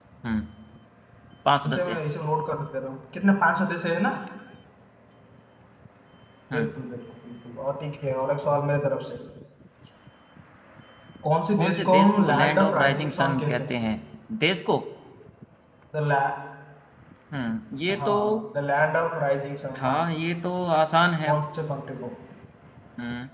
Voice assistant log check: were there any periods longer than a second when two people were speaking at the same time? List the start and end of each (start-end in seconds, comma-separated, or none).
11.6-13.8